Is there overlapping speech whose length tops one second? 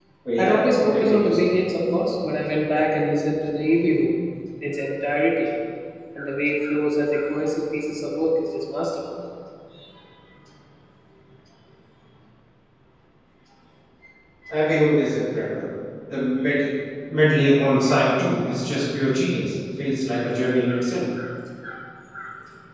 Yes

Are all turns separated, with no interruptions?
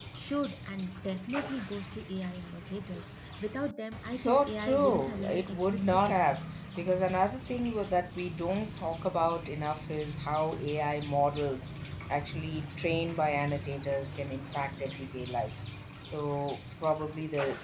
No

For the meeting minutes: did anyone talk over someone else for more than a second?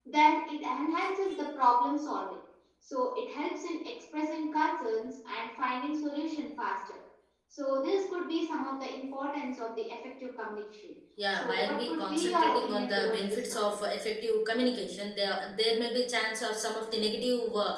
Yes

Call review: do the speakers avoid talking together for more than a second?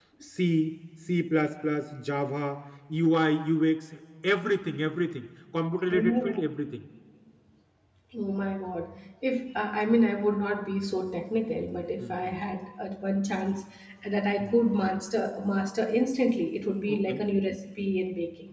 Yes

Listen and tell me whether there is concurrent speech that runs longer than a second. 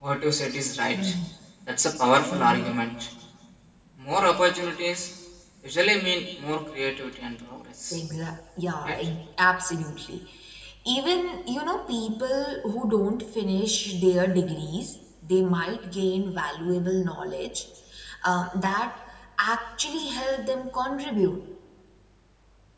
No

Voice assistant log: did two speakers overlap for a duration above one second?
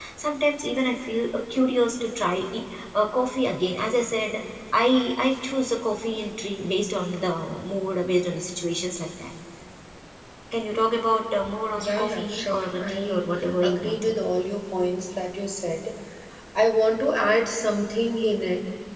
Yes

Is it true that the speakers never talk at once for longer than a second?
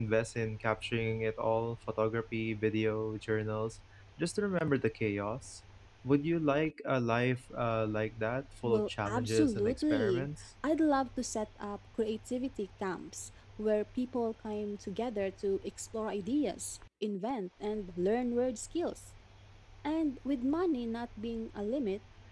No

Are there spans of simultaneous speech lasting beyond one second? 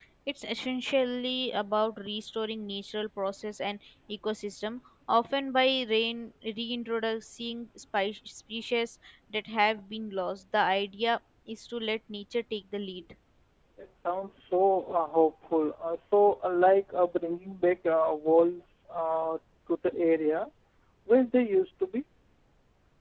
No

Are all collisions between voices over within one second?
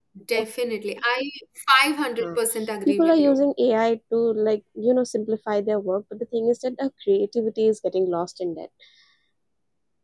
Yes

